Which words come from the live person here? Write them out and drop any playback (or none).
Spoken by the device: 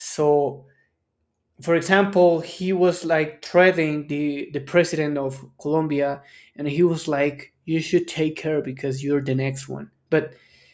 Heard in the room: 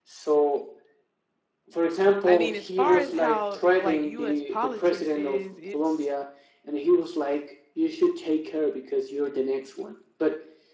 I mean, as far as how like U.S. politics is, it's,